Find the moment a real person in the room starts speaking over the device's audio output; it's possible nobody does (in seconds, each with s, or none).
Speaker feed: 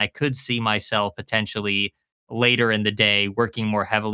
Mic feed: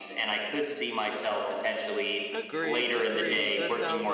2.3 s